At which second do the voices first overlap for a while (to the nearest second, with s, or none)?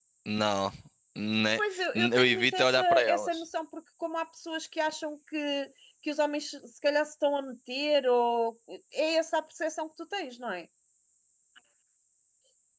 2 s